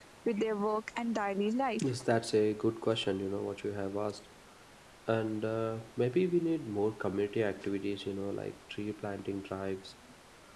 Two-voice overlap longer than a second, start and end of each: none

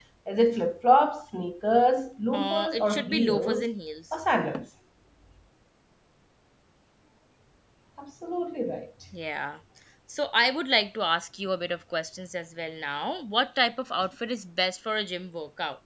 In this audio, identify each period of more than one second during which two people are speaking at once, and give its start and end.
2.3-3.7

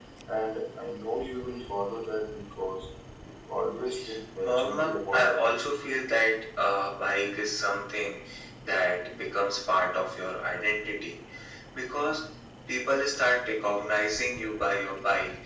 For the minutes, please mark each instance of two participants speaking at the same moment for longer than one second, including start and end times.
4.4-5.8

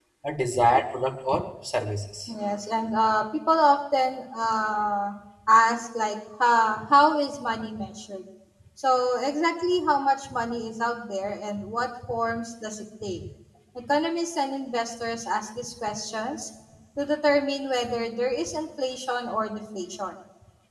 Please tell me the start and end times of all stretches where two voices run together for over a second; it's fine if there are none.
none

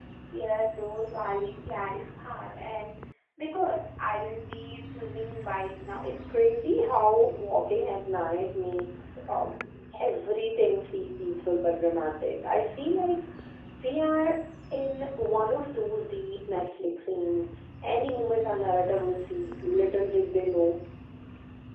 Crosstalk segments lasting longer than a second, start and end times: none

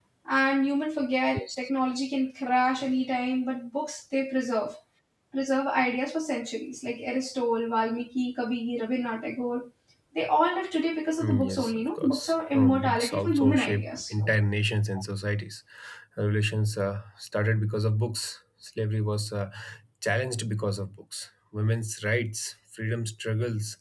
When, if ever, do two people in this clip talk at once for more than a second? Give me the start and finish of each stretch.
11.2-14.2

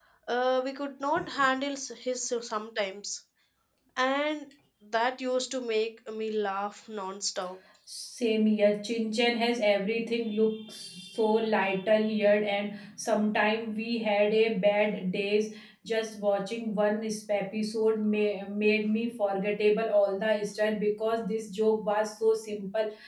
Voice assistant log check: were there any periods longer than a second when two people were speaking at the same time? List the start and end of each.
none

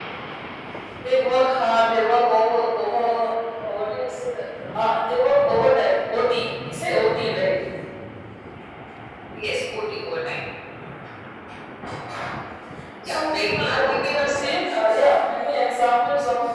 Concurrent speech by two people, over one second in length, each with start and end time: 13.1-14.5

